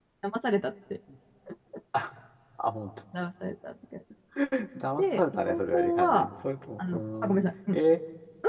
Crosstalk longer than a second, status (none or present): present